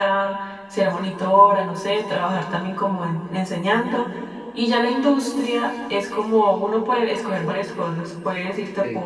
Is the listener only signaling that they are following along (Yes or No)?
Yes